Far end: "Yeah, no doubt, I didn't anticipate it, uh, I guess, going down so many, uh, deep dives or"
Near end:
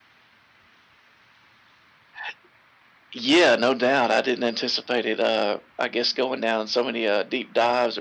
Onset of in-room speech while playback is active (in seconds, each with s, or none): none